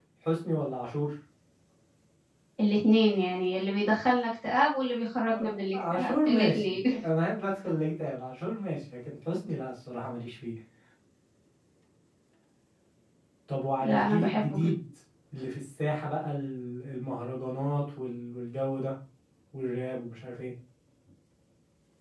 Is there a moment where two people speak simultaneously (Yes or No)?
Yes